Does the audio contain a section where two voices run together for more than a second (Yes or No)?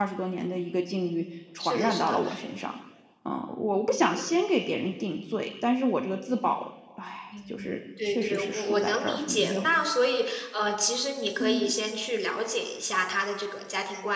Yes